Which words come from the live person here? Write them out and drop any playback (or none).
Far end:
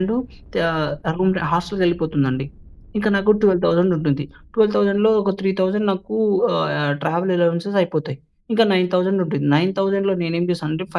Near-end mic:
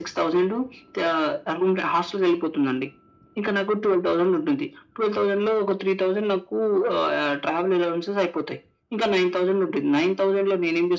none